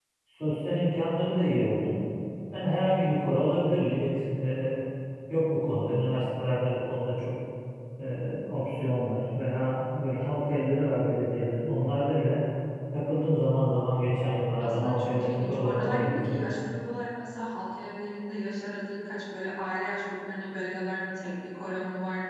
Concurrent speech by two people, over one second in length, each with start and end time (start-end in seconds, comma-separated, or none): 14.6-16.4